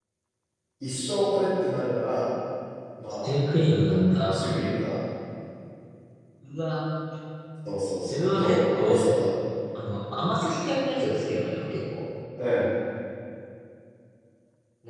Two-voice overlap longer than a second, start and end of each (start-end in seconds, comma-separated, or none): 8.1-9.3